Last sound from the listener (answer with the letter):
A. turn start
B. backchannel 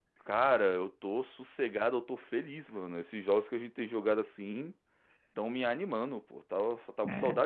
B